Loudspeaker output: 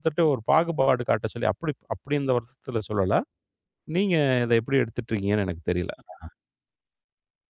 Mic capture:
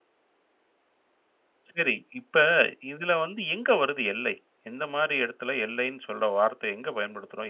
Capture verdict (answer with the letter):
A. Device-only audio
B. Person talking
B